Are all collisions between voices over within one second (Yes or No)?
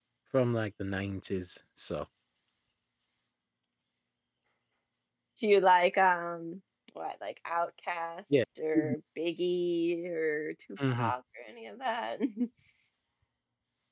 Yes